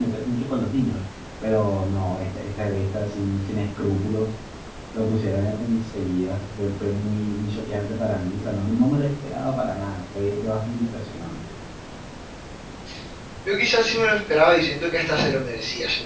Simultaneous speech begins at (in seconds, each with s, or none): none